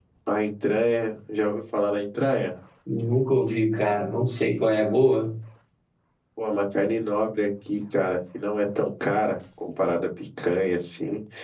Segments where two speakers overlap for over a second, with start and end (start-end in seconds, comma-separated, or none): none